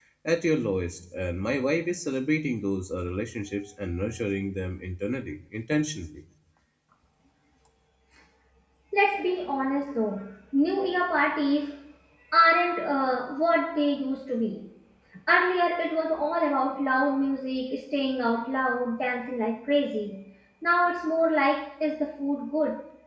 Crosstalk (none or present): none